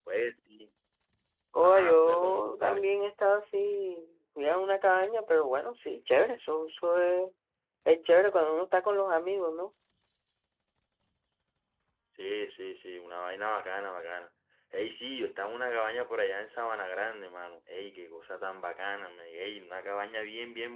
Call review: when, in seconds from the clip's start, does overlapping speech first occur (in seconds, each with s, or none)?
1.6 s